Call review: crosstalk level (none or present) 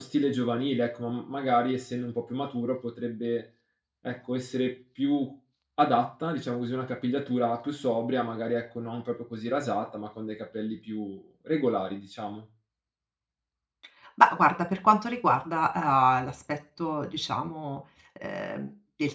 none